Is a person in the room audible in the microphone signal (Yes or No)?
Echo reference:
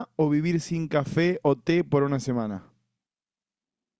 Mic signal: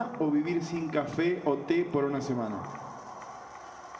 No